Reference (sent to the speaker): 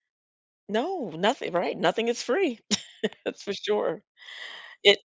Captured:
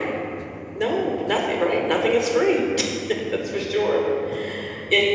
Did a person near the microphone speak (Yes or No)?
No